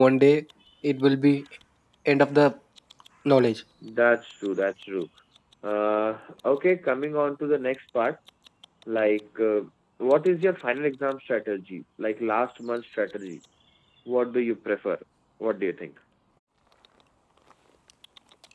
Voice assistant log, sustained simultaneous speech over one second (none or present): none